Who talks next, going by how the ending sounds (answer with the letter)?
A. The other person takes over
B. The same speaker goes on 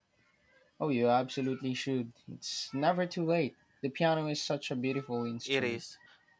A